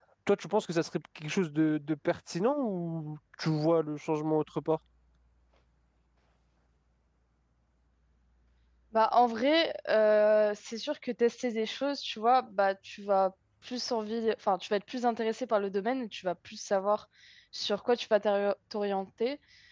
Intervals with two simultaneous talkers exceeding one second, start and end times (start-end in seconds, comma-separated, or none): none